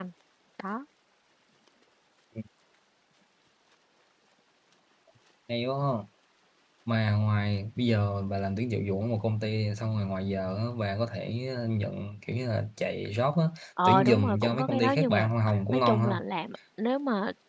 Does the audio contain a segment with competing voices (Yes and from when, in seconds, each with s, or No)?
Yes, from 13.8 s